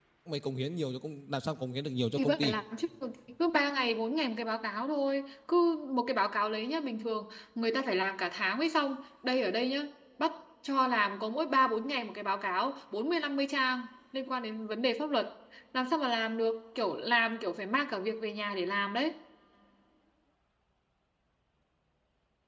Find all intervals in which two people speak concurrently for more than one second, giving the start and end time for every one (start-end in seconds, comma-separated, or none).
none